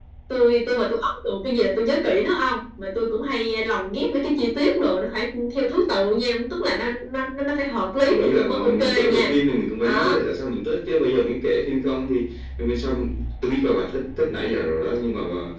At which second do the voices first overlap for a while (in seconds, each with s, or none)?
8.0 s